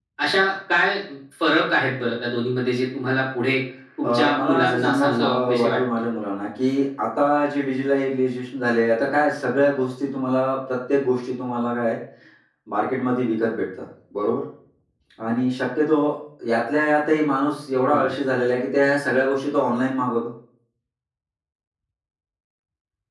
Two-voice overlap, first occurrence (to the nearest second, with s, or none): 4 s